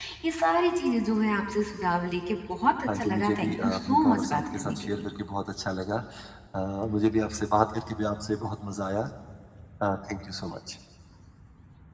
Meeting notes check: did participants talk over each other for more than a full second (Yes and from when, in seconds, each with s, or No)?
Yes, from 2.9 s